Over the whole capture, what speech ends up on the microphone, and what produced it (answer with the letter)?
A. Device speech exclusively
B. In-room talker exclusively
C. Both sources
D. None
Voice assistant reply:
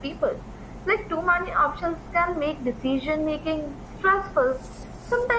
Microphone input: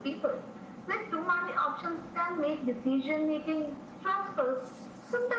A